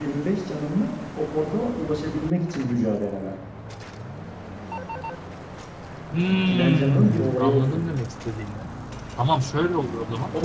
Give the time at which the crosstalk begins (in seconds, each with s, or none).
6.3 s